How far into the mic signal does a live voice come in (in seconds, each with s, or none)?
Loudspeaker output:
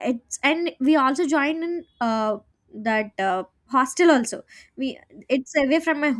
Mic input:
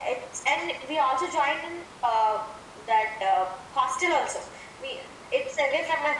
none